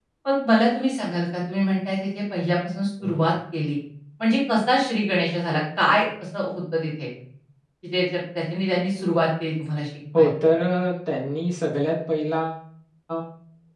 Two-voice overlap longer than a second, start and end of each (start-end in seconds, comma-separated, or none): none